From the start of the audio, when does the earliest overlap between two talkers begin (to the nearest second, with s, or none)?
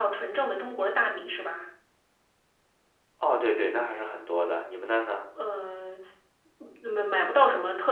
none